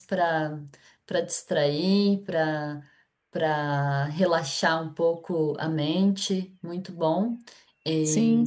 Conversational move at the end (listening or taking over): listening